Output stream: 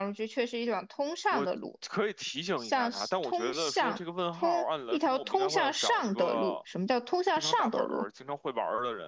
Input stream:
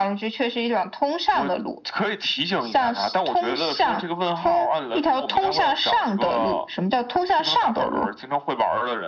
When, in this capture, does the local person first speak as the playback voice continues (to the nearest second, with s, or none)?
none